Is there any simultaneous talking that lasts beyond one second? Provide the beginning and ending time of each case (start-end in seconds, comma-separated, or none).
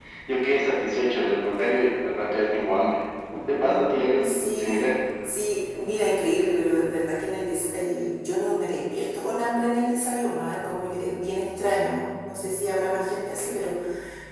3.6-4.9